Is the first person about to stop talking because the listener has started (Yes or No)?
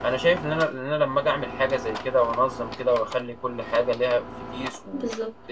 No